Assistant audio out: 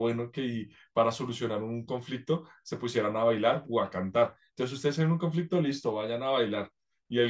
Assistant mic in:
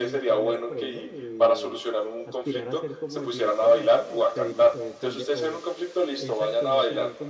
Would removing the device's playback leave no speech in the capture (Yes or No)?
No